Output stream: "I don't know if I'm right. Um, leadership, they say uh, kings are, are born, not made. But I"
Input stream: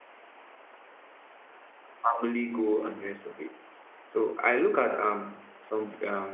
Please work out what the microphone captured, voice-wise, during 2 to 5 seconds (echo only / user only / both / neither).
user only